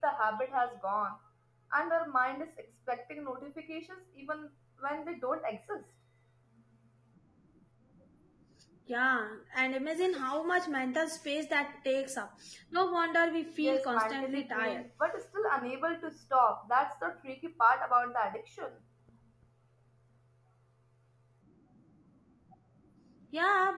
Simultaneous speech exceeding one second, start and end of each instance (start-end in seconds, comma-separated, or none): 13.6-14.8